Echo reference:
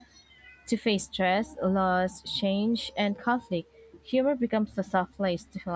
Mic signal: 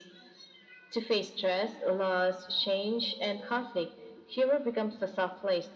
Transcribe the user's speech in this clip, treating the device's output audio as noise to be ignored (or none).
none